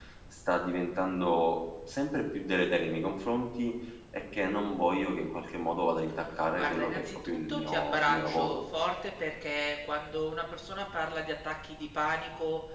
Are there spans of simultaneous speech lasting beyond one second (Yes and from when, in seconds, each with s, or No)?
Yes, from 6.6 s